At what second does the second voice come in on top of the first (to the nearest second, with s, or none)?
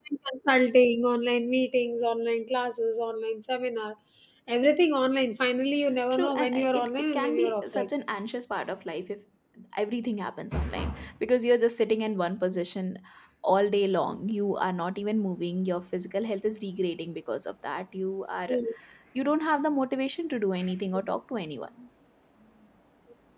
6 s